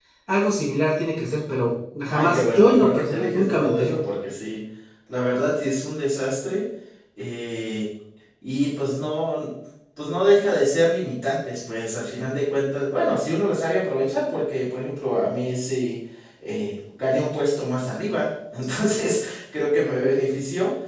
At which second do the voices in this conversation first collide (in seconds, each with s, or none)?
2.1 s